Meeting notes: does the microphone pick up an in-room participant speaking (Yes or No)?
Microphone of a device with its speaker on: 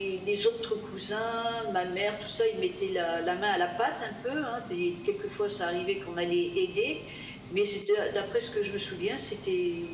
No